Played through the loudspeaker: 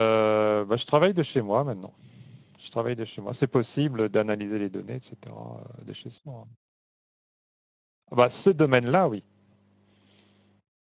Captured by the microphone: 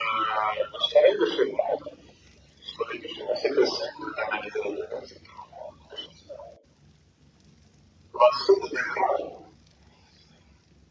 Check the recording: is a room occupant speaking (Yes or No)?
No